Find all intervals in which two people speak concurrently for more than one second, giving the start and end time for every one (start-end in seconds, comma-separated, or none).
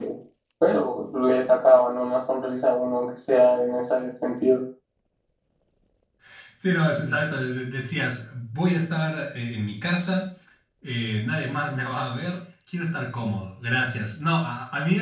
none